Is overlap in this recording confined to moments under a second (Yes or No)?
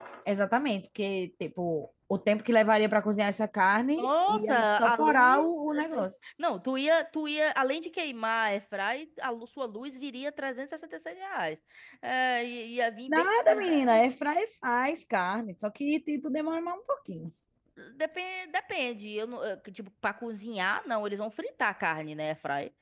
No